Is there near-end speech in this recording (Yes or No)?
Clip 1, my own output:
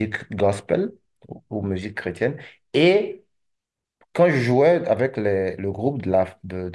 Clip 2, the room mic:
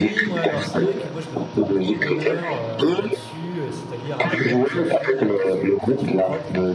Yes